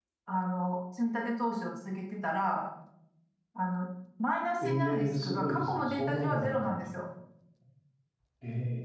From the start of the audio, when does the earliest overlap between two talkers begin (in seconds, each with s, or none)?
4.6 s